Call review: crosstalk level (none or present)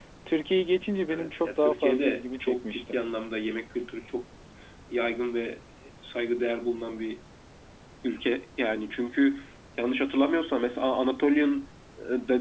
present